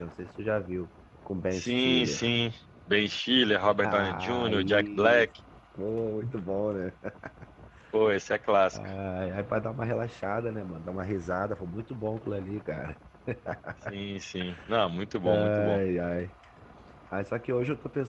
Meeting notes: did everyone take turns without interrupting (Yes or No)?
No